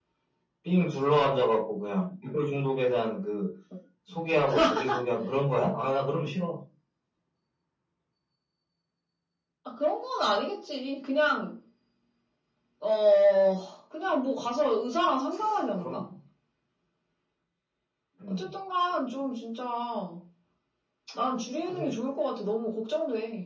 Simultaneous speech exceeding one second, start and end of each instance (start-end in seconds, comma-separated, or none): none